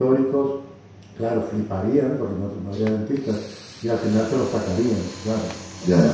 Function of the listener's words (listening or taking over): taking over